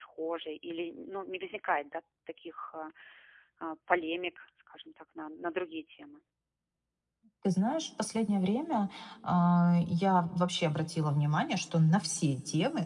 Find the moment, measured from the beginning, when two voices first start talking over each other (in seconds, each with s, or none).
none